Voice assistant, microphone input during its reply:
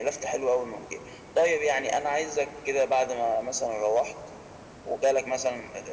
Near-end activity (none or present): none